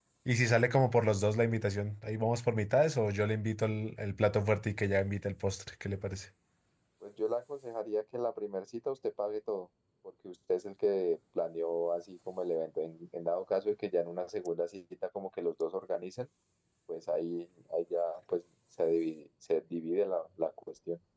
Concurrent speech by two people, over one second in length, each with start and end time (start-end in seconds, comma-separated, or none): none